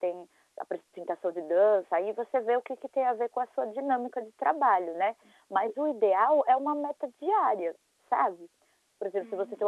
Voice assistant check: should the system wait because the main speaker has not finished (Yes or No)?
Yes